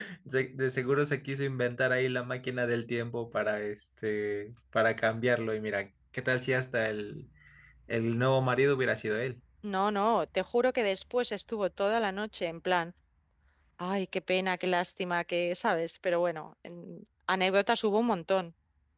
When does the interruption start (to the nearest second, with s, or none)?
none